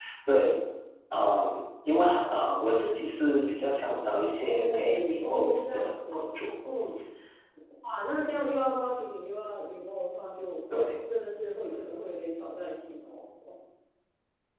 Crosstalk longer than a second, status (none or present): present